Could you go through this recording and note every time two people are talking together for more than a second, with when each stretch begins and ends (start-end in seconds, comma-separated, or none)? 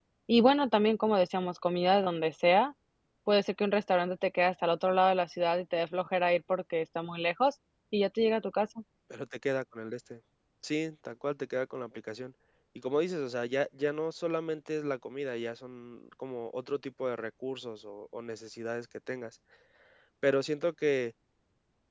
none